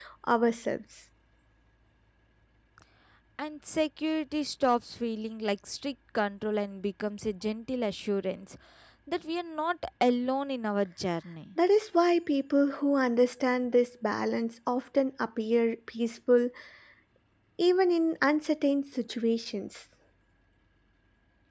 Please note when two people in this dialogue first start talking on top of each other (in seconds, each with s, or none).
none